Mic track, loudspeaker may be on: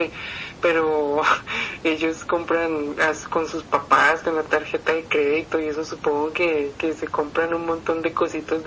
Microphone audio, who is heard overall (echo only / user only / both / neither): echo only